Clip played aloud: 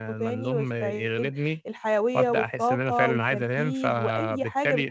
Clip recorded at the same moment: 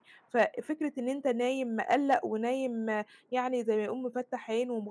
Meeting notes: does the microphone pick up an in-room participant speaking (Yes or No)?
Yes